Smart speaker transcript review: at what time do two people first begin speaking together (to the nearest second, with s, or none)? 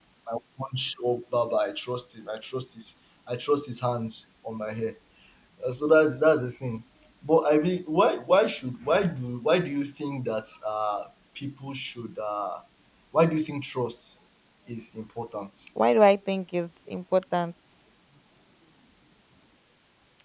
none